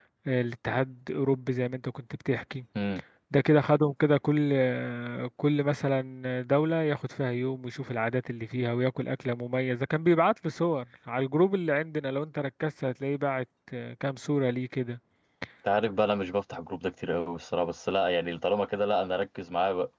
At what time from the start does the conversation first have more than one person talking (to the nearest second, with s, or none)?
none